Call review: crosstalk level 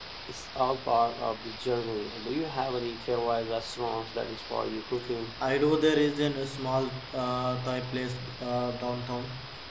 none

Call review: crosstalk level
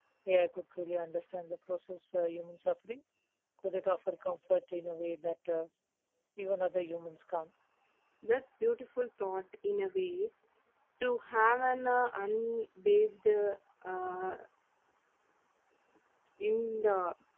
none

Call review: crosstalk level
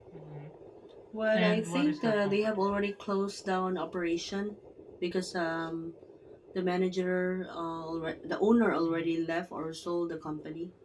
present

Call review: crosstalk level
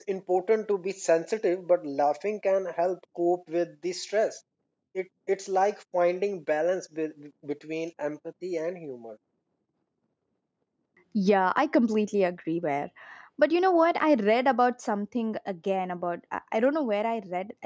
none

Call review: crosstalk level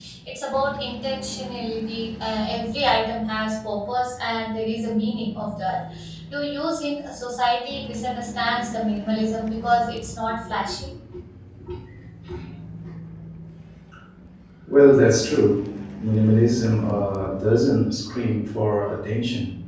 none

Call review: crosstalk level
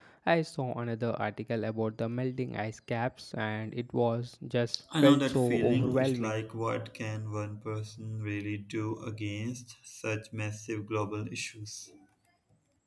present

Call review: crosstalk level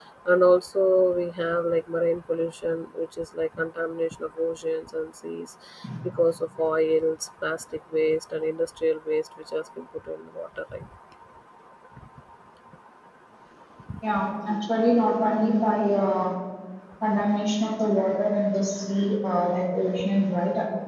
none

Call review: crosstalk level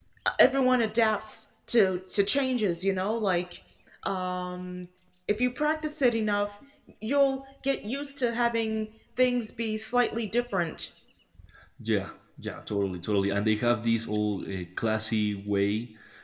none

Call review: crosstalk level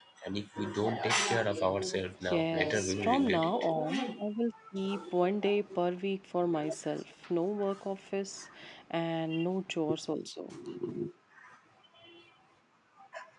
present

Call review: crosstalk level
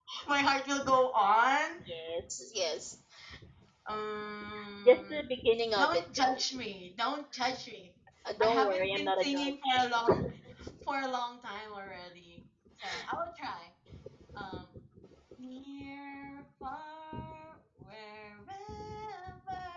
present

